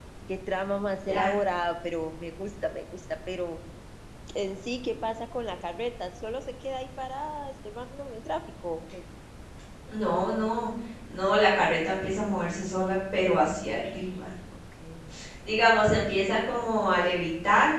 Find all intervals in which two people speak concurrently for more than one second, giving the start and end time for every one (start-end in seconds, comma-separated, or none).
none